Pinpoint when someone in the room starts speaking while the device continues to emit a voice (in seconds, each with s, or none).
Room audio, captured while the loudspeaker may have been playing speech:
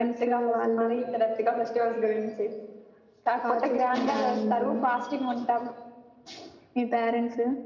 none